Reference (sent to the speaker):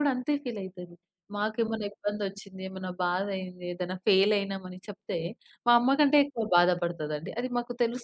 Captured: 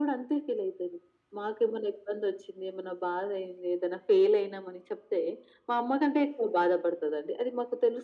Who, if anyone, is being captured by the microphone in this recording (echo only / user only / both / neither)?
echo only